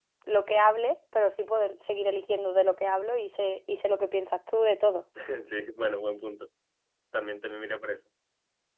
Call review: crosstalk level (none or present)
none